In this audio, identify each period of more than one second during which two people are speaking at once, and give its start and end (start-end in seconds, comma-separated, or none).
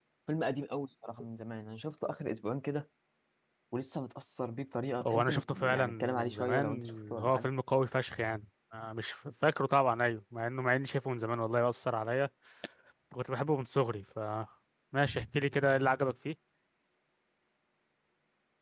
5.1-7.5